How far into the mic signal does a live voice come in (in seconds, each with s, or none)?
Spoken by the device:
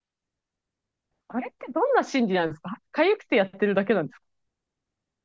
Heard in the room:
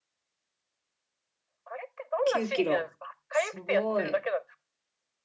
2.2 s